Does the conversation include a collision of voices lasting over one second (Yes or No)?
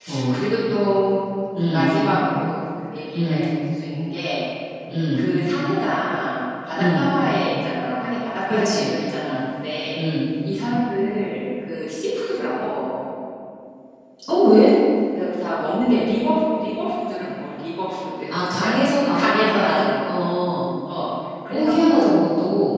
Yes